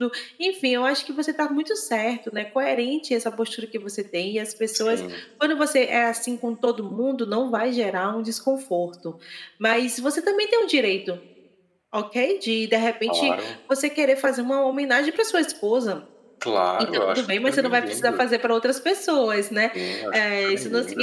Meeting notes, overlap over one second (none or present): present